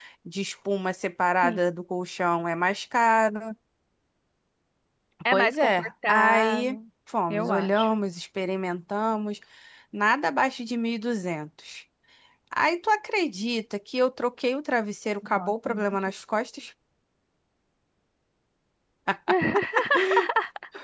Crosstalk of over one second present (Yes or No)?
Yes